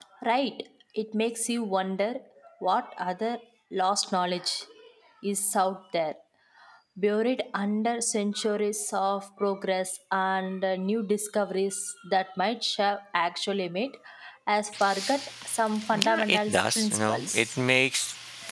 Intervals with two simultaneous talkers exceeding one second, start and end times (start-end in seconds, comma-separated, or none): 16.0-17.5